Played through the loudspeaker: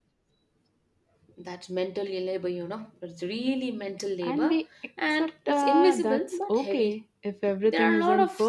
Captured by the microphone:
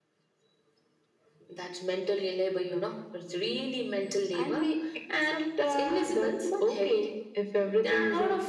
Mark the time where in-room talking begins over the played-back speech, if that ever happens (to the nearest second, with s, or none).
none